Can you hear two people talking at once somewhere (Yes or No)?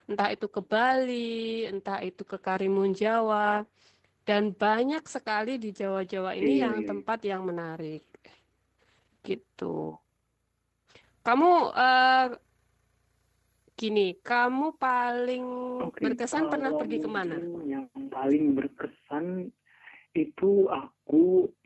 Yes